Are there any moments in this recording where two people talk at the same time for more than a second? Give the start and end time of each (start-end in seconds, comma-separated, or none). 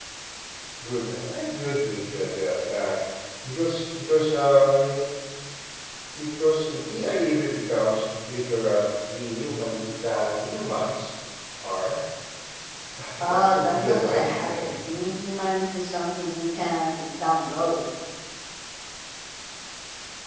13.2-14.7